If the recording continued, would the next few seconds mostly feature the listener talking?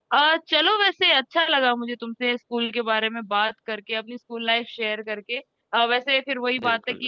No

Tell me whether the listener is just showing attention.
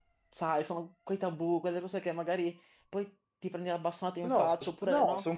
No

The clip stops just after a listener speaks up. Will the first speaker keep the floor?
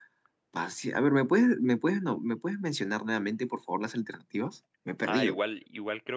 No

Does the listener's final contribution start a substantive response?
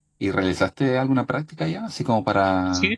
No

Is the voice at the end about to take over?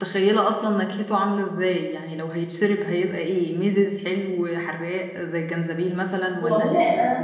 Yes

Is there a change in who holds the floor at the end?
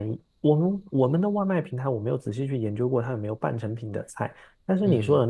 No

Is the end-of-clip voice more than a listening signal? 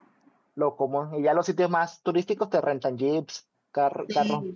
Yes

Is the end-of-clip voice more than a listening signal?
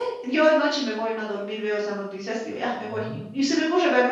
No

